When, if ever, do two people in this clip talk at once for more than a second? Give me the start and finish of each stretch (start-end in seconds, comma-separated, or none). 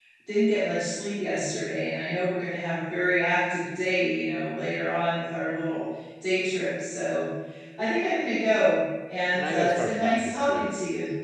9.3-10.7